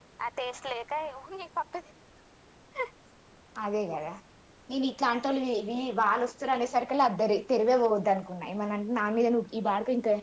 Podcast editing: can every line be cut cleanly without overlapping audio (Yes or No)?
Yes